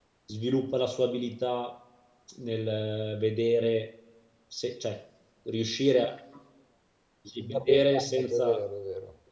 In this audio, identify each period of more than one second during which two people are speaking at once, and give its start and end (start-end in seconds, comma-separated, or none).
7.4-8.6